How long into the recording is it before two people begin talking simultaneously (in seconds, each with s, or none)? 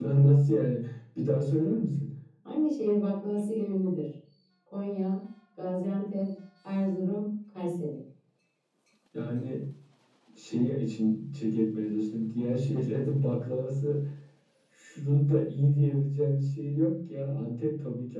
none